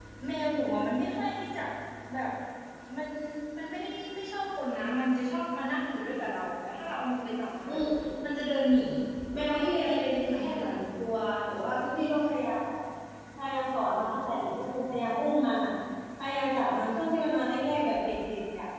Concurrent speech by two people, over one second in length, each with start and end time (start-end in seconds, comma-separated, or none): 9.5-10.7